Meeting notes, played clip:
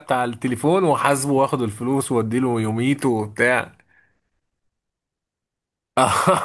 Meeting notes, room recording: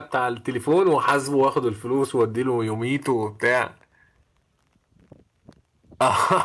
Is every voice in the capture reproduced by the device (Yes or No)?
Yes